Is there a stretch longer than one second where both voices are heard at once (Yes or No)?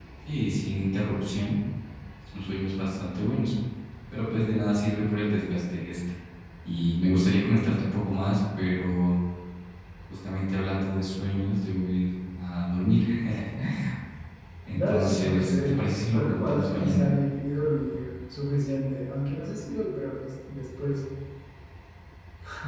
Yes